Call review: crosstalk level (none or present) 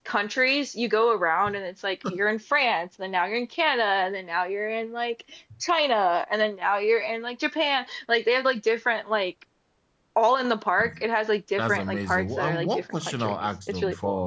present